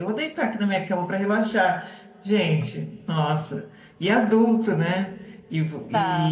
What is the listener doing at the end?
listening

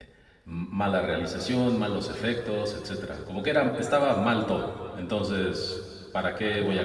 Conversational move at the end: listening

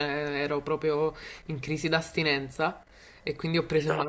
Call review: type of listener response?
listening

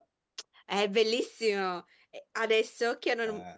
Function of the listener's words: listening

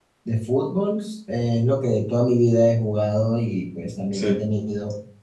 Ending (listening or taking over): listening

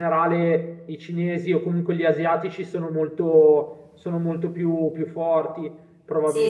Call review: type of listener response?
taking over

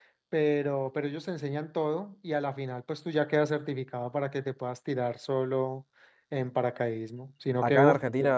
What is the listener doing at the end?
taking over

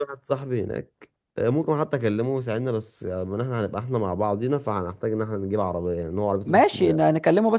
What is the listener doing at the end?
taking over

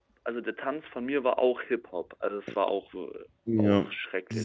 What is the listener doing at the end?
taking over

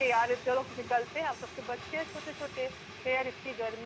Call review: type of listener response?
listening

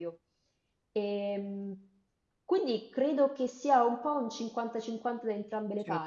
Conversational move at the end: listening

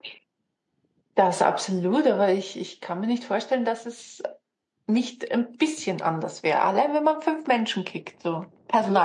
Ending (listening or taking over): taking over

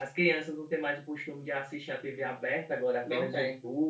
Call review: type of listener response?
listening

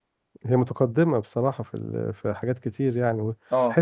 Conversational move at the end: listening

